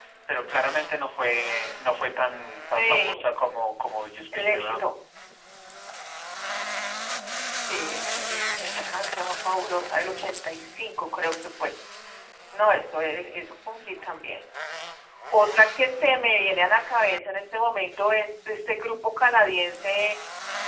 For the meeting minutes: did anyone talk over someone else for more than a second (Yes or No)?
No